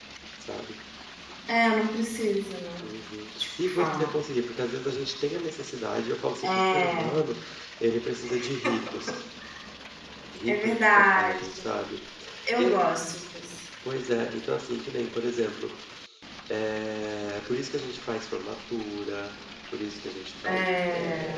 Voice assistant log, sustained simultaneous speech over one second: present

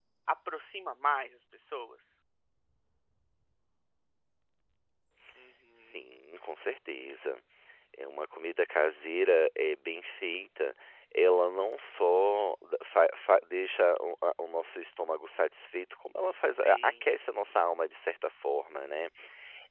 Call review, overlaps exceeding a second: none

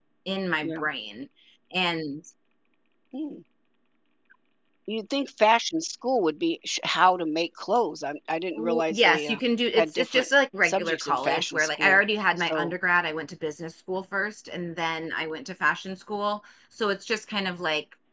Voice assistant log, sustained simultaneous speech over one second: present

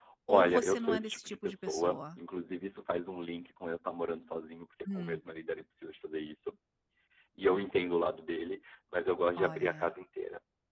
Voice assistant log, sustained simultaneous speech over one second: present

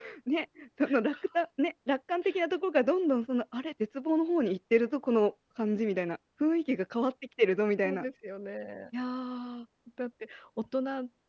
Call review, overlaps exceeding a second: none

